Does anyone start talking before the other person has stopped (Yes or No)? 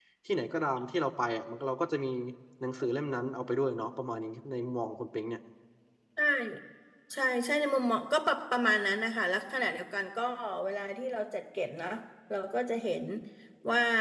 No